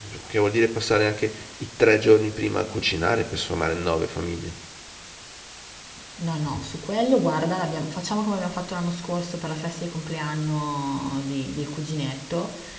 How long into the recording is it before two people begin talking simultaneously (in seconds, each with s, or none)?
none